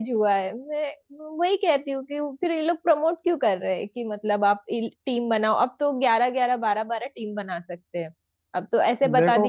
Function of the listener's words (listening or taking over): listening